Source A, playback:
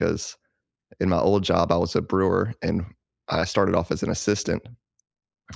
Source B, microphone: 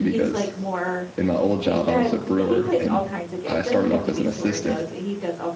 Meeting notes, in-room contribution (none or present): present